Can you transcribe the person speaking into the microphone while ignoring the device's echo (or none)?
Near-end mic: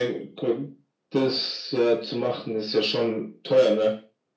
none